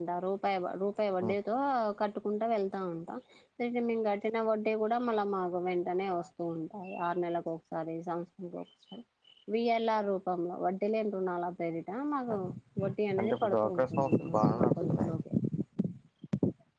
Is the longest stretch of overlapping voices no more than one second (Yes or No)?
No